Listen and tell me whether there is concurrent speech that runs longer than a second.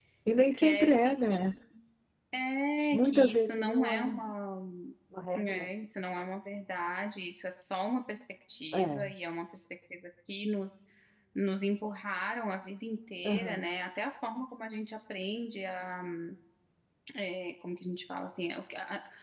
Yes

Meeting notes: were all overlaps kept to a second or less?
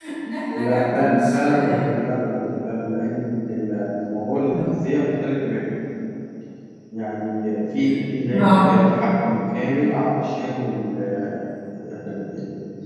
No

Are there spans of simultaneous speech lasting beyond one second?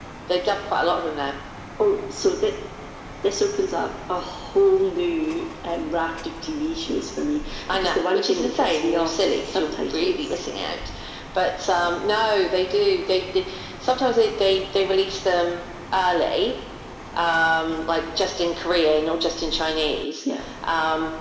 Yes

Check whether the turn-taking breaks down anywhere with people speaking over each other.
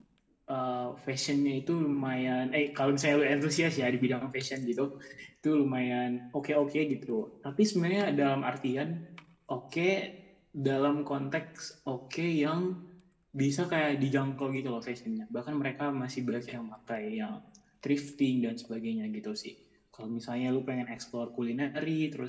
No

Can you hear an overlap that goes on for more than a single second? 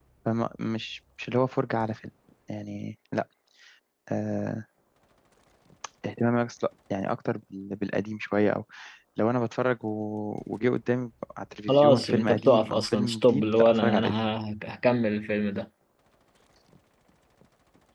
Yes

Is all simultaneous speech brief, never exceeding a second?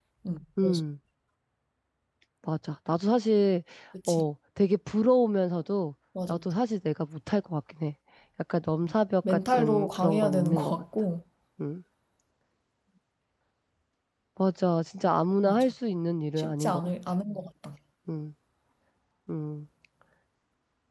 No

